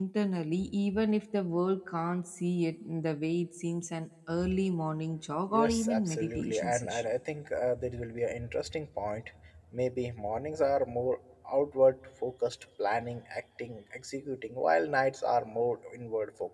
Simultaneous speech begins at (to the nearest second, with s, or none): 6 s